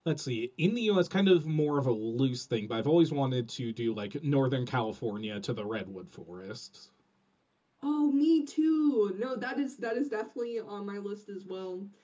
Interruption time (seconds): none

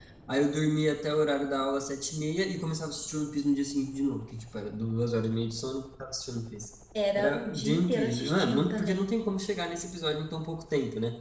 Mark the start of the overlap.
7 s

